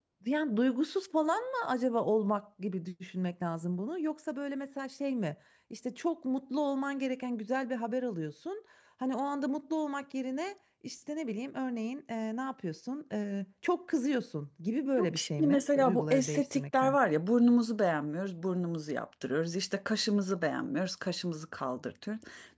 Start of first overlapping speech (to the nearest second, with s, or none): 15 s